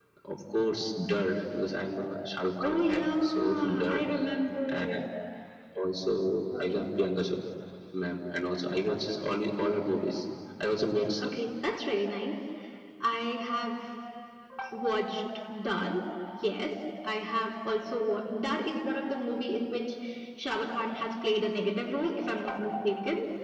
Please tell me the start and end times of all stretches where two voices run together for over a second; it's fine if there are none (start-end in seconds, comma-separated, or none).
2.6-4.0